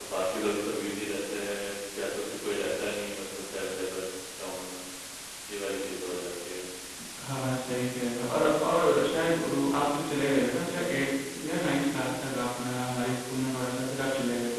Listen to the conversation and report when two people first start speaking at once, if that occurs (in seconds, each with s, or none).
none